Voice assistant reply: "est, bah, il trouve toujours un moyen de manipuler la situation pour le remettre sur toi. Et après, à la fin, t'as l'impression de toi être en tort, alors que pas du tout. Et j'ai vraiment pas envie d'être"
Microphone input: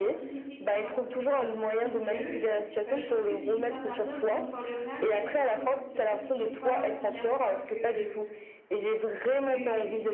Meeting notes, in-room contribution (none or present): present